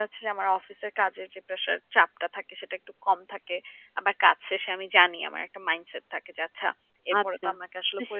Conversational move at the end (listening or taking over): taking over